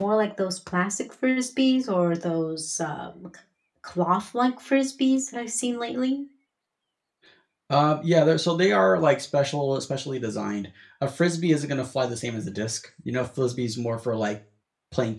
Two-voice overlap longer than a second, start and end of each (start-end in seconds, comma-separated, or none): none